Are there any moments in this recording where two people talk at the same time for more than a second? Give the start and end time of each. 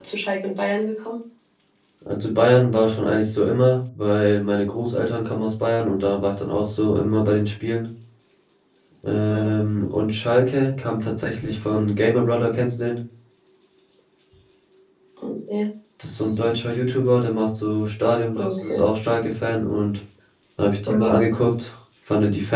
none

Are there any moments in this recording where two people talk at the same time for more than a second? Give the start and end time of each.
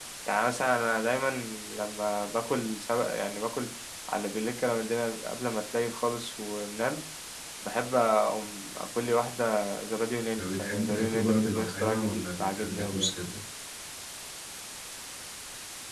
10.4-13.1

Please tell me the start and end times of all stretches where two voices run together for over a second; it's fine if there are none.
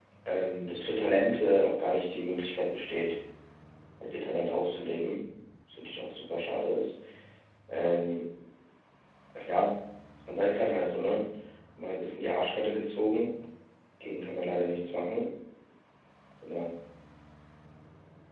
none

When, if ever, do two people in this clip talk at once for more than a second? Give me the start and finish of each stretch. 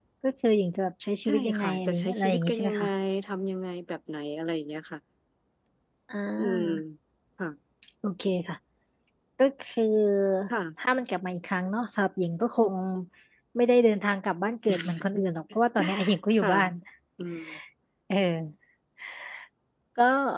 1.2-2.8

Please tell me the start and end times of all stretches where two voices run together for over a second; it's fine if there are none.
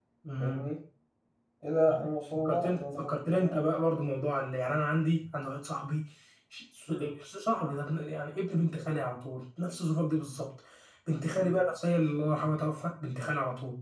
2.4-3.7

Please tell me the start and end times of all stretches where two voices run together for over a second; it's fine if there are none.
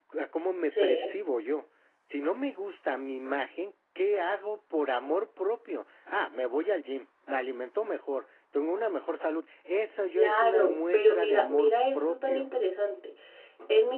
10.2-12.5

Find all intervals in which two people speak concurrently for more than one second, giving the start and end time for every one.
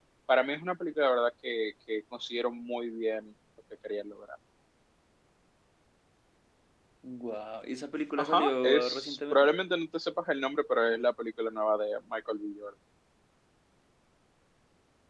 8.2-9.5

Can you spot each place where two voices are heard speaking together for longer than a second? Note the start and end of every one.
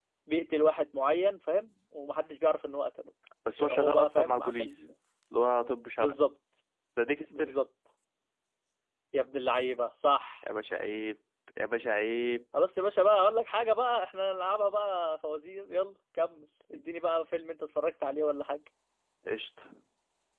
3.6-4.8

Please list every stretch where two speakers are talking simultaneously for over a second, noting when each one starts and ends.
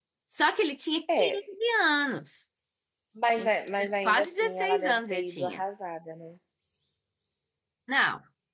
4.0-5.6

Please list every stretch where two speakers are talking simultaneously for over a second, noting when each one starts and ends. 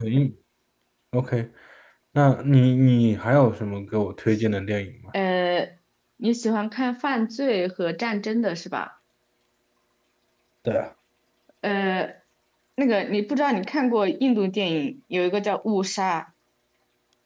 none

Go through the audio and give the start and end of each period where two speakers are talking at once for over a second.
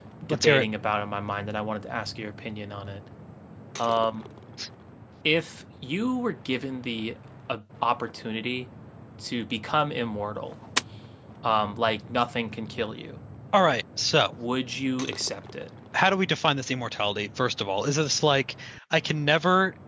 none

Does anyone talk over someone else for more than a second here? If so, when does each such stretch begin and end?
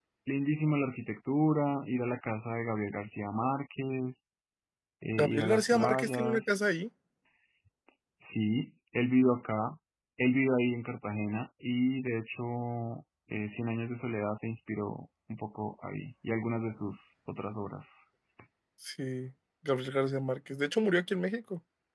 5.2-6.5

